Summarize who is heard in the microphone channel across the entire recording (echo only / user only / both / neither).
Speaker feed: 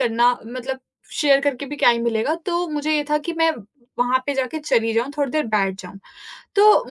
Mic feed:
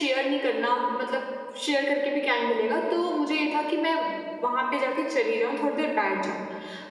echo only